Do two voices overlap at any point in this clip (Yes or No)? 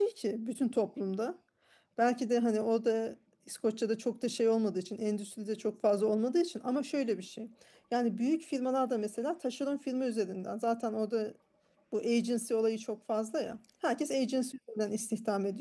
No